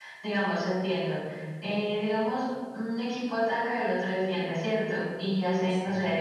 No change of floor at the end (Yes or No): Yes